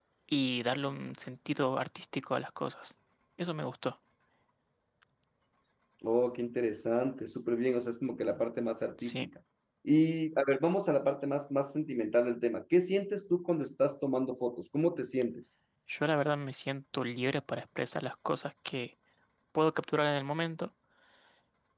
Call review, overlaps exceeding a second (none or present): none